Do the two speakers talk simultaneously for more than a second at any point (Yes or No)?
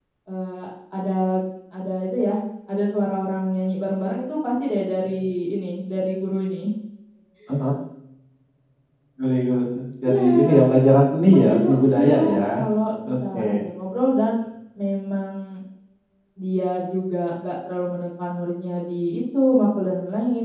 Yes